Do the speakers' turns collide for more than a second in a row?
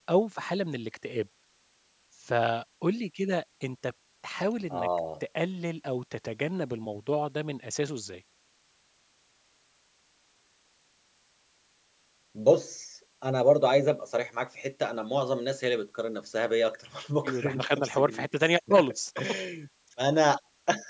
Yes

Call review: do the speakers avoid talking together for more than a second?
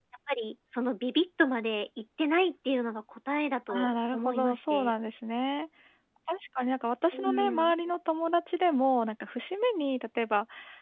No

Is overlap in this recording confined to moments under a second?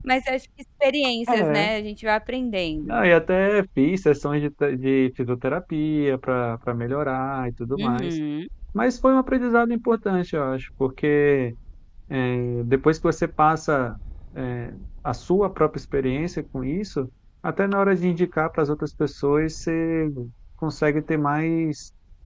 Yes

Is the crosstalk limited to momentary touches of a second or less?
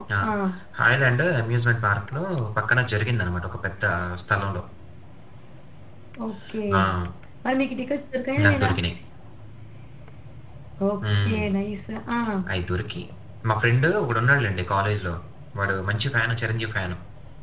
Yes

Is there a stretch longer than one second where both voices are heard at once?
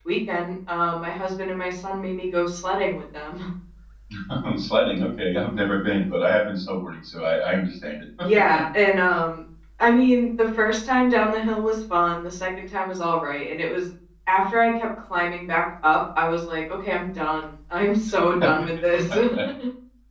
No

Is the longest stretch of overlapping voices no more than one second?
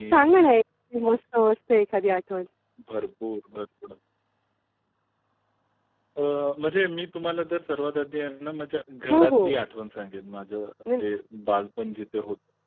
Yes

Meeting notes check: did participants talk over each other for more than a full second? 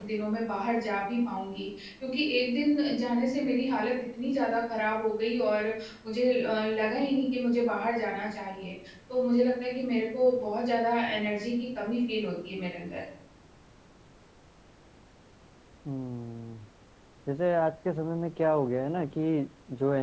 No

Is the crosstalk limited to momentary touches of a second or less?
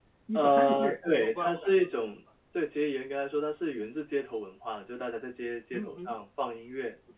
No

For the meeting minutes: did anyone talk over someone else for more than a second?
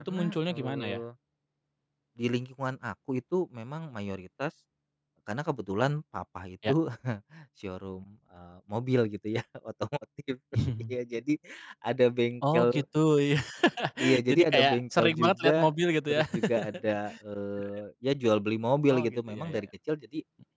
Yes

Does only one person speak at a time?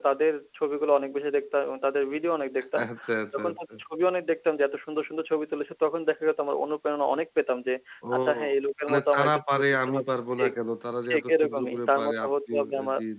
No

